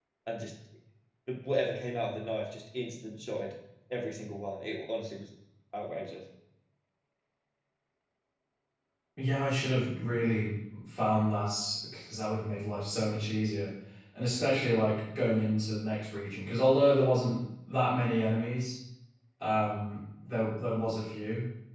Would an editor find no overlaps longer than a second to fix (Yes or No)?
Yes